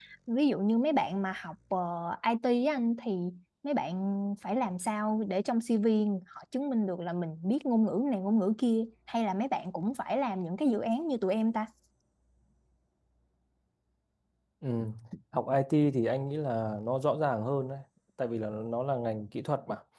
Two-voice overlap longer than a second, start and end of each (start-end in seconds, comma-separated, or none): none